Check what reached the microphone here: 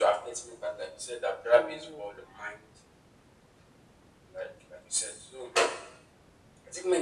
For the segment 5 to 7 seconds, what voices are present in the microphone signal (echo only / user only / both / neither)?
echo only